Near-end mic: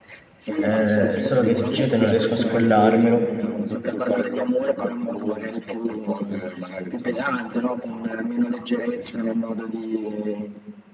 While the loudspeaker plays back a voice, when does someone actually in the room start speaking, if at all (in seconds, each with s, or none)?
0.6 s